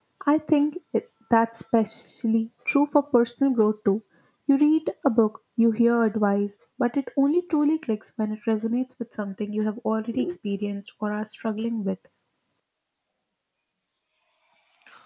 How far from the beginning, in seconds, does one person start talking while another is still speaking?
none

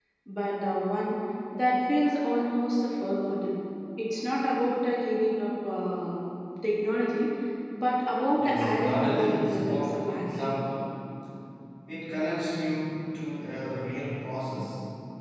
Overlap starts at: 8.3 s

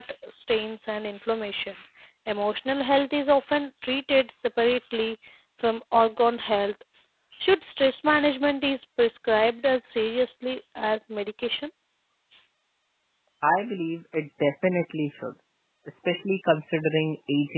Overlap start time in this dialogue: none

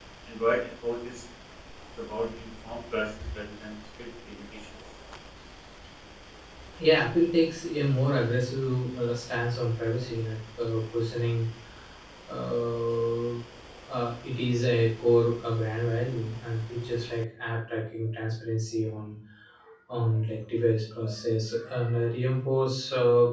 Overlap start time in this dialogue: none

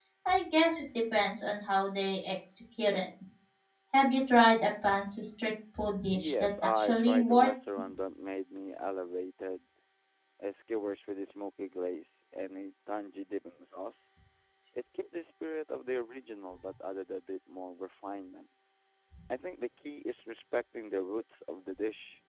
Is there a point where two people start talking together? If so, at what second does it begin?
6.1 s

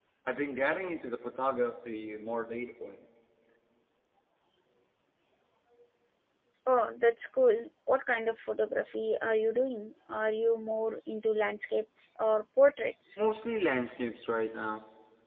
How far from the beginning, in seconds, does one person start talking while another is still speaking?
none

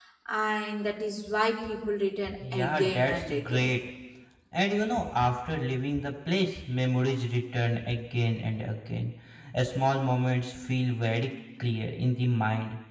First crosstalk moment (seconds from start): 2.3 s

